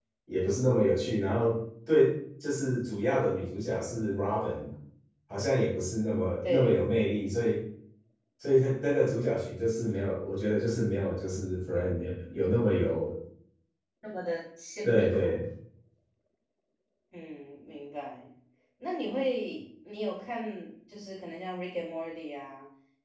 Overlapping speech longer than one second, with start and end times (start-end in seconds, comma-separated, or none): none